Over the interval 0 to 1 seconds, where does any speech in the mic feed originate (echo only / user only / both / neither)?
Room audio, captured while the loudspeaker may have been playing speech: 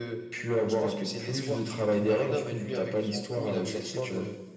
echo only